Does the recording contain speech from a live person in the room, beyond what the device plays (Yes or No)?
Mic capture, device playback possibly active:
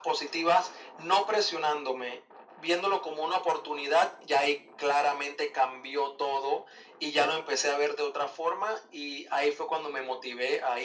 No